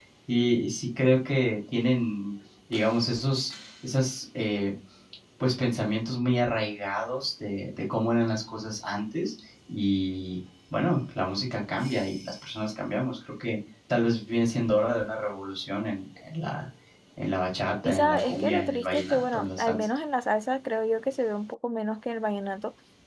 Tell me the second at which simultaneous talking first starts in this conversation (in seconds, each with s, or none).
17.8 s